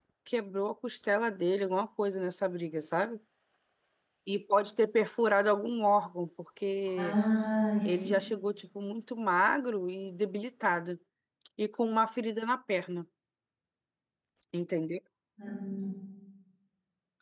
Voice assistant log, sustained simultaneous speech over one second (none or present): none